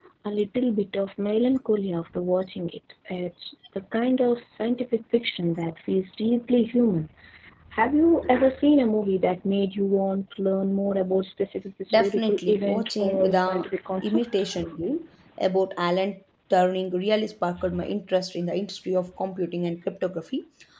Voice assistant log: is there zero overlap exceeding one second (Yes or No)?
No